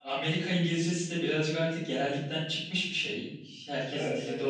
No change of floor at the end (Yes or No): No